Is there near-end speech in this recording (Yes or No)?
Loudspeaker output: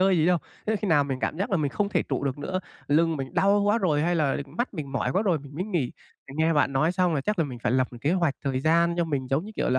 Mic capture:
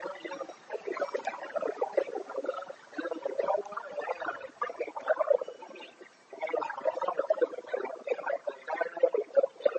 No